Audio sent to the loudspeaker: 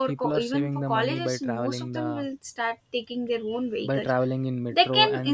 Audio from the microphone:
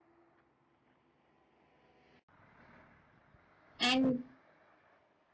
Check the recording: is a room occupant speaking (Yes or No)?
Yes